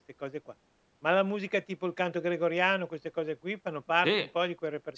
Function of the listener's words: taking over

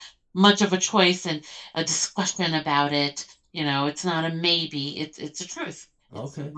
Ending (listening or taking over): listening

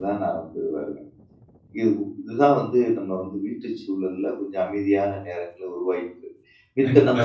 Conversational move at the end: listening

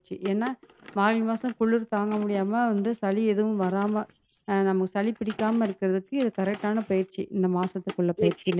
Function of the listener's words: taking over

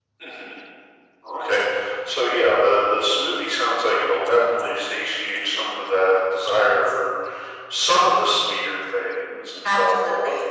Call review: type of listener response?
taking over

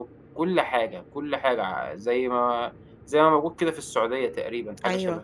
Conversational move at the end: taking over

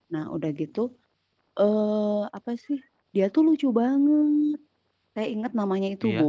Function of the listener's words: listening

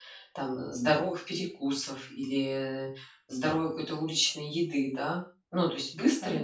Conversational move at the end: listening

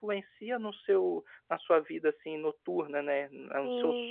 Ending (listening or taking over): taking over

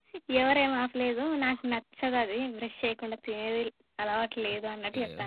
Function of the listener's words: taking over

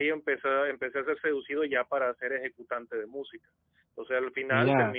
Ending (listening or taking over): listening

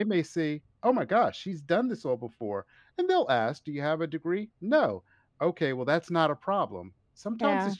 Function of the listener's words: listening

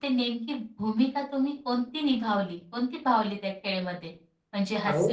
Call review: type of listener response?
listening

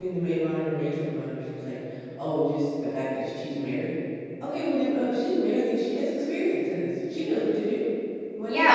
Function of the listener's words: taking over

